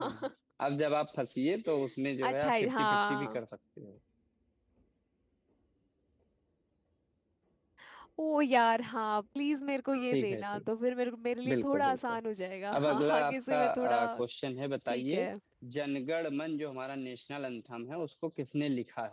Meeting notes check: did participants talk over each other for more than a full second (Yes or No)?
Yes